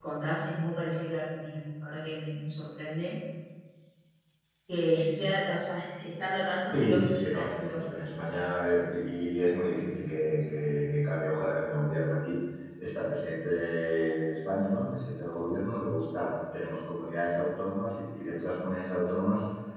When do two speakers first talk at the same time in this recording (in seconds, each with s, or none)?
6.7 s